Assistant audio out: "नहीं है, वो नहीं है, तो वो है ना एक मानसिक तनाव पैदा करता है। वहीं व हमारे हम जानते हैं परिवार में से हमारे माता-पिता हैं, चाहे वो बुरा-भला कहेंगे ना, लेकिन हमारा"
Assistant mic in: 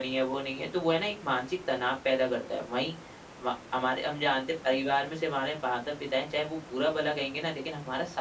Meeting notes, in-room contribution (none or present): none